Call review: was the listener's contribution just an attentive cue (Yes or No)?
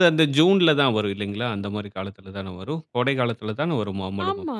No